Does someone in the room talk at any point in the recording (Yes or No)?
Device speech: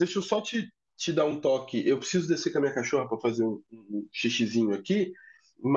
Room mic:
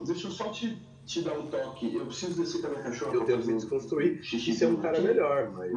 Yes